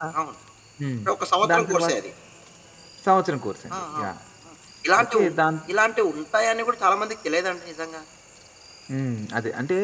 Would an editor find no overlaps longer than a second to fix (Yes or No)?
Yes